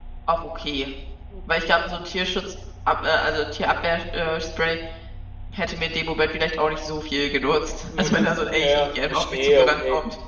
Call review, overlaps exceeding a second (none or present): present